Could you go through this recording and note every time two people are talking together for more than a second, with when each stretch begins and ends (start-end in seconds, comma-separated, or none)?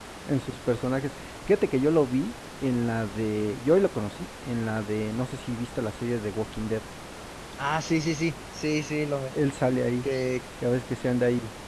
none